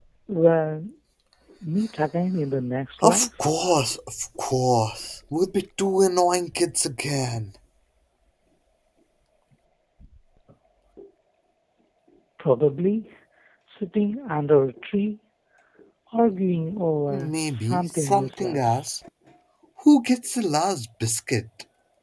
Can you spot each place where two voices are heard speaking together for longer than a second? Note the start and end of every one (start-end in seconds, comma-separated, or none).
17.1-19.0